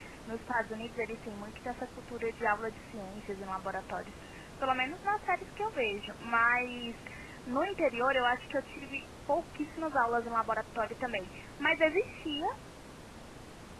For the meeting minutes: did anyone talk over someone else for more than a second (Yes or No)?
No